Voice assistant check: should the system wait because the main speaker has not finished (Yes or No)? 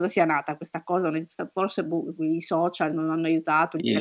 No